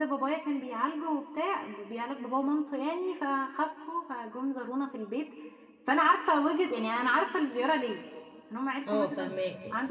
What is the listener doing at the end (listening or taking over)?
listening